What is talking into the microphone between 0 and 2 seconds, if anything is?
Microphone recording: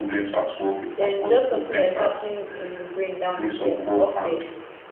both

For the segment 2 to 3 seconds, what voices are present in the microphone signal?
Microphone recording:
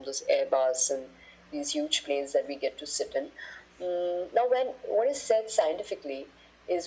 echo only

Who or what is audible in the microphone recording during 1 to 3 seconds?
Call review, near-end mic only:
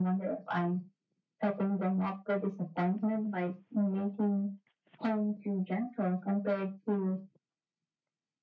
echo only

